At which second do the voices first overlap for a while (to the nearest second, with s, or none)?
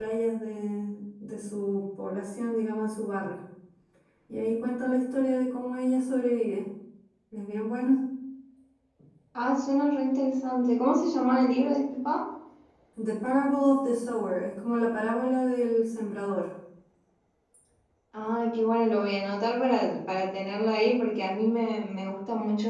none